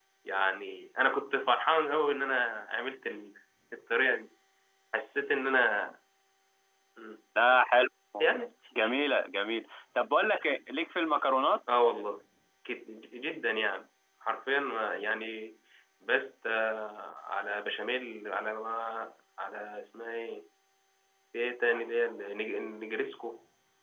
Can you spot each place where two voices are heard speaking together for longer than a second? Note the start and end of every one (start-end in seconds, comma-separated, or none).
none